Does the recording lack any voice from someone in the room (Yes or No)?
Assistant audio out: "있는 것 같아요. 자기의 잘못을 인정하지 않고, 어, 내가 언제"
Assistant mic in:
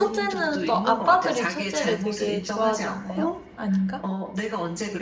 No